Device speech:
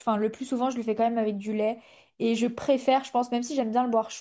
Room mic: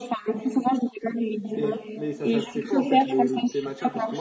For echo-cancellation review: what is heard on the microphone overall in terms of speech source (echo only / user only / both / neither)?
both